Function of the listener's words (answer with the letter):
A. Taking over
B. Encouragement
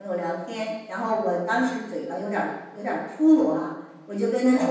B